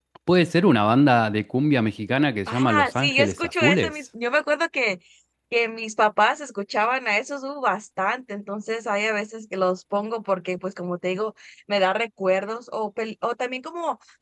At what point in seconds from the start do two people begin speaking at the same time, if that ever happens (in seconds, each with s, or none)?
2.5 s